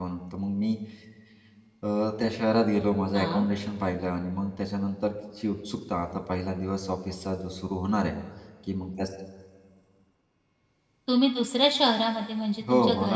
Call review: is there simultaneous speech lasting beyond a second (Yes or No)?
No